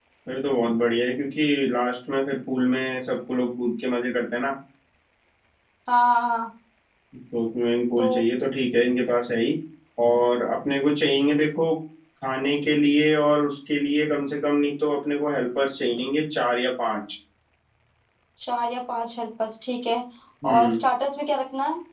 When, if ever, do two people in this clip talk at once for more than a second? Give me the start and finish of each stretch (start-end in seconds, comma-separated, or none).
none